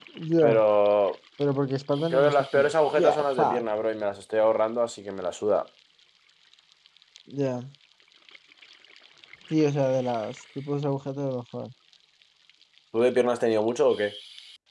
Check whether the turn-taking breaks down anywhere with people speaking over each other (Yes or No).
Yes